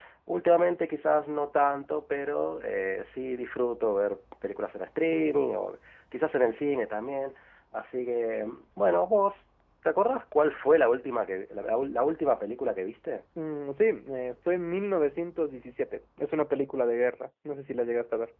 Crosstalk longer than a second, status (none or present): none